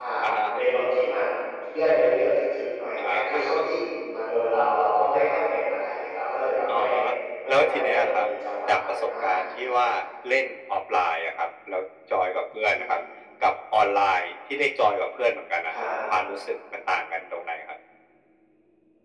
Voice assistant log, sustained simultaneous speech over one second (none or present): present